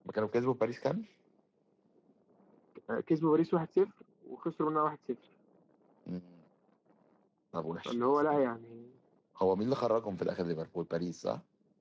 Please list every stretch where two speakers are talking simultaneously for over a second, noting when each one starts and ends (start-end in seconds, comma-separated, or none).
none